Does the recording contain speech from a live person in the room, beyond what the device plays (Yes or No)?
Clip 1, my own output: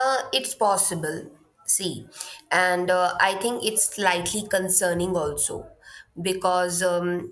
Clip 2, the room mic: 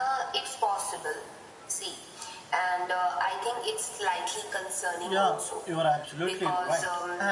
Yes